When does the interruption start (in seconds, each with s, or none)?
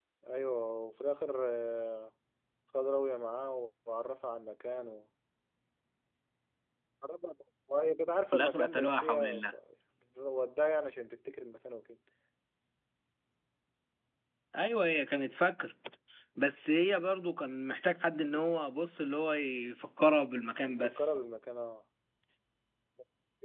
8.3 s